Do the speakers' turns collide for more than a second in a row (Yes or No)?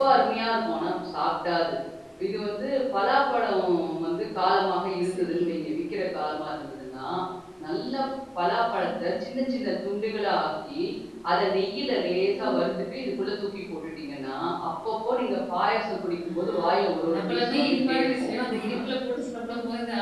Yes